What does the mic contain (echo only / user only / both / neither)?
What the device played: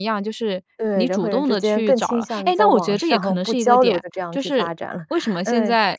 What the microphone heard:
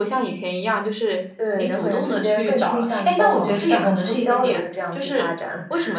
echo only